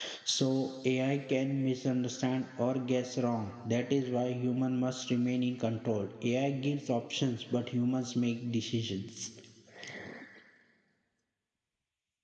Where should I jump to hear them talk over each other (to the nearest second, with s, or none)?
none